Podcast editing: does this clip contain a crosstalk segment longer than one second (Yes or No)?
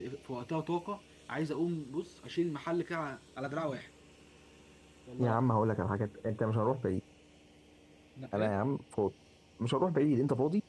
No